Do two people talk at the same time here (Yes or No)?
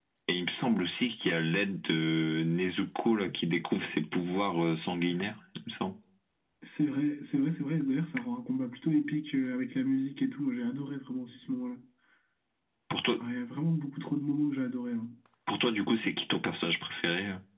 No